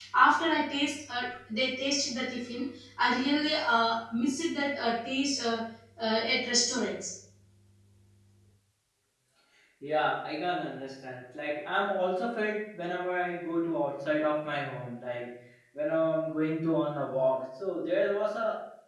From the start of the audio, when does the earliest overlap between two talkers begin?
none

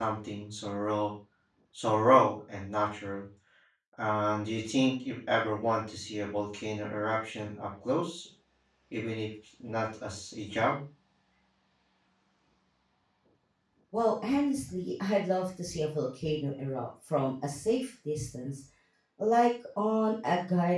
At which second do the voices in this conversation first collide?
none

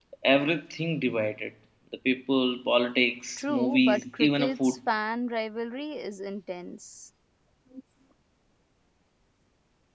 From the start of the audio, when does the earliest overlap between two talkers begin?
3.4 s

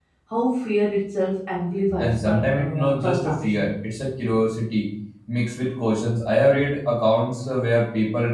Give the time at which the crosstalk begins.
2.0 s

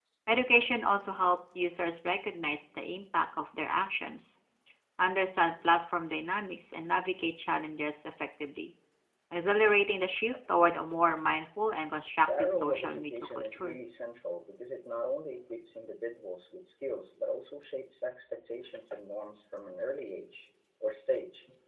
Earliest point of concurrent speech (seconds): 12.2 s

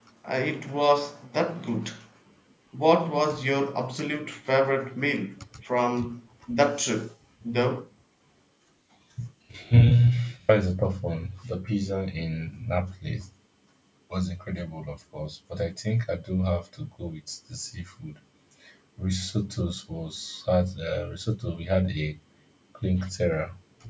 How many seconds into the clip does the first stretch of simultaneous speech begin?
none

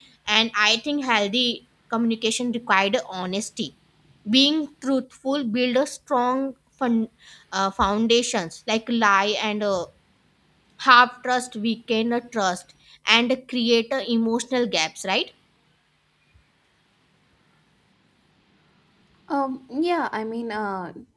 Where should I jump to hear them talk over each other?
none

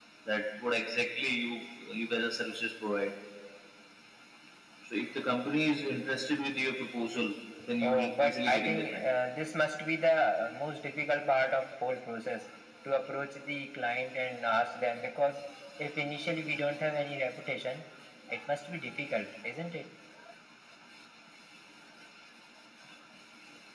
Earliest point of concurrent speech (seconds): 7.8 s

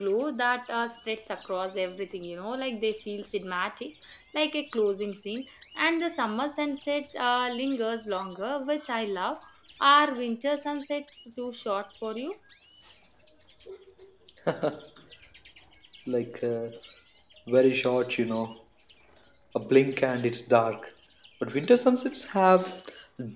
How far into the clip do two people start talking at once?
none

